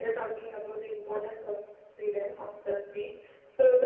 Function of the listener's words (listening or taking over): listening